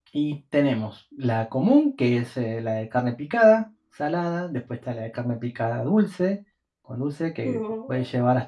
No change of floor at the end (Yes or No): Yes